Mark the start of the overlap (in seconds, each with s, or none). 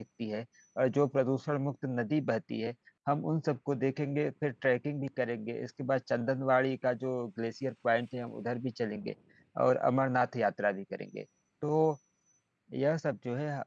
none